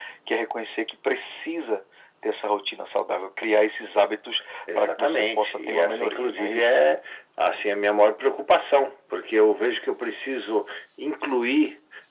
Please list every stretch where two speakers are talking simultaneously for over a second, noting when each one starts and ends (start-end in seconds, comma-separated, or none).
4.8-6.8